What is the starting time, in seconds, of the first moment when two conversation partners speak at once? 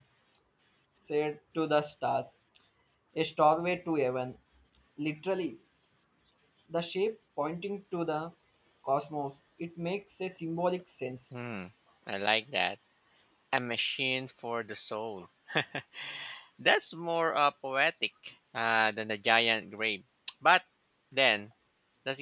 none

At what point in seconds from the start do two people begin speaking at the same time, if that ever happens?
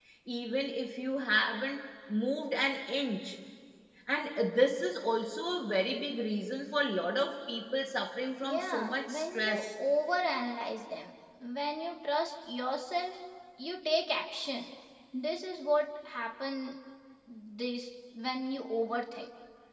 8 s

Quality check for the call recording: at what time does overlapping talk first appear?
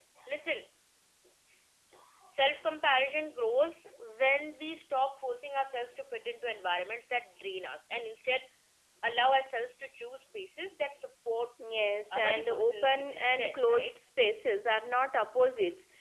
12 s

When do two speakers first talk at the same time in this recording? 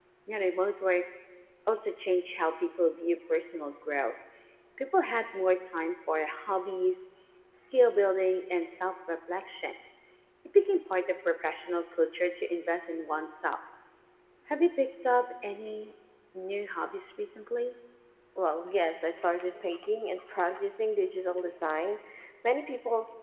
none

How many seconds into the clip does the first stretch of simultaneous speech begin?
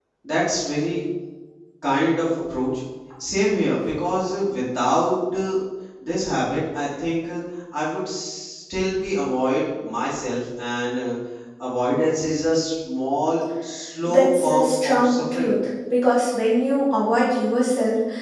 14 s

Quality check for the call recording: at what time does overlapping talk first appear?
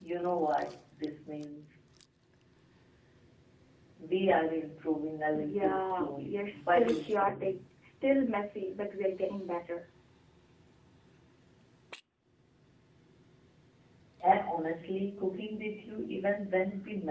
5 s

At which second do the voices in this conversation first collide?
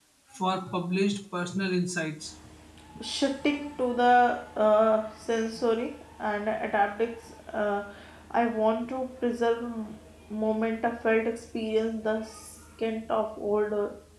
none

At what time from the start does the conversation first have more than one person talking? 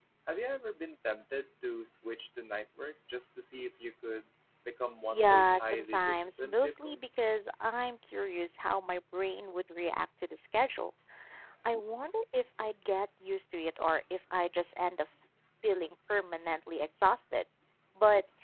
5 s

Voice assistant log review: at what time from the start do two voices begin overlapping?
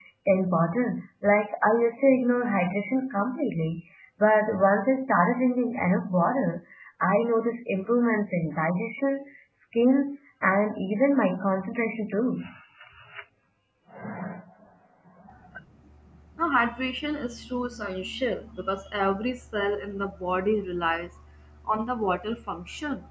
none

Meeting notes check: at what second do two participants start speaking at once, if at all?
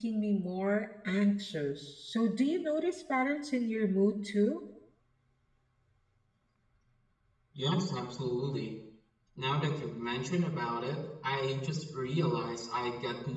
none

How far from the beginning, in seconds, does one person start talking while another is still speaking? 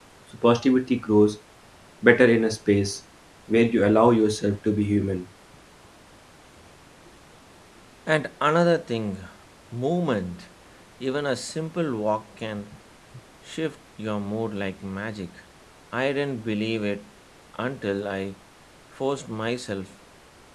none

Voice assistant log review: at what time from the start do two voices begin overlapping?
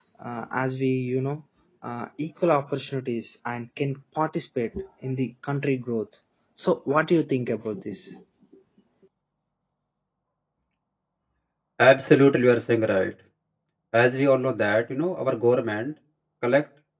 none

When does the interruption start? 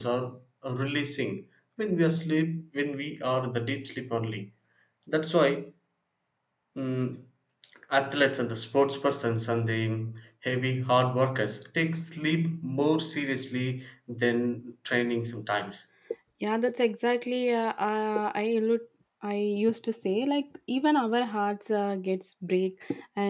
none

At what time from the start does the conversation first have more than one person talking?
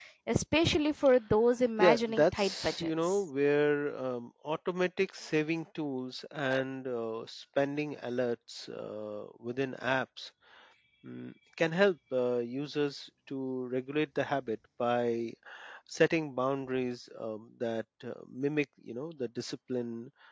2 s

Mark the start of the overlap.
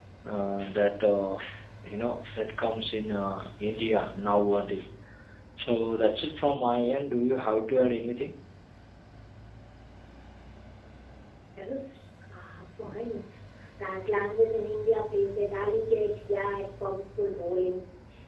none

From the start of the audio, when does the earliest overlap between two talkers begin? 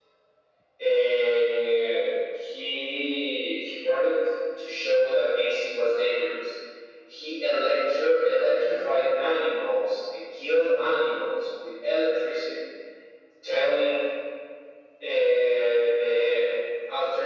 none

